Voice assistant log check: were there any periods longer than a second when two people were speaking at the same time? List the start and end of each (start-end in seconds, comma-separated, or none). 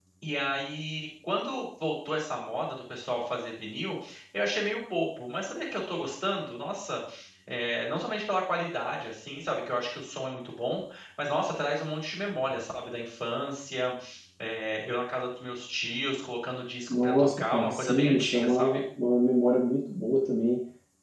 16.9-18.8